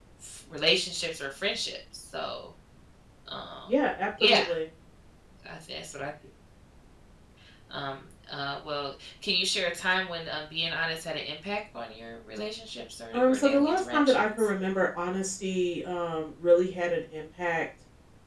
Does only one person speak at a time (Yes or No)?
No